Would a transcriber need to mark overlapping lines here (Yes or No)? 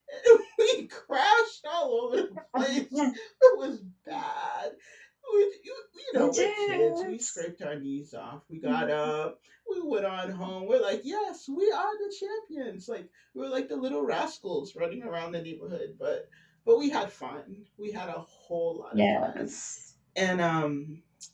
Yes